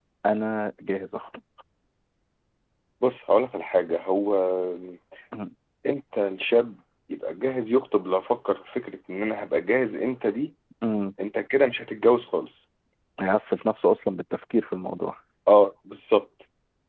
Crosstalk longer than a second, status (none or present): none